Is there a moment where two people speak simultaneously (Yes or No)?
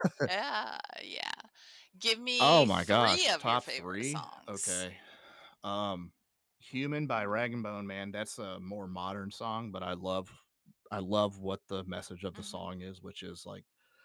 Yes